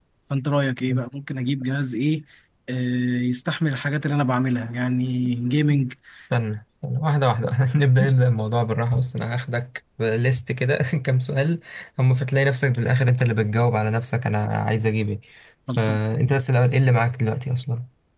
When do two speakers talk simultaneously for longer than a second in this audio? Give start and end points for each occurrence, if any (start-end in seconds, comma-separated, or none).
none